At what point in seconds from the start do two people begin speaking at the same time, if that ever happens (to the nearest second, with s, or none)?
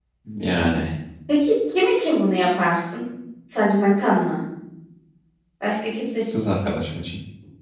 none